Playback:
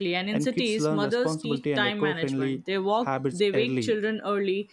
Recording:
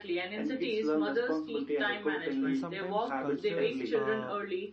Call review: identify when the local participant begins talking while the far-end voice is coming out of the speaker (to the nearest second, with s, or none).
2 s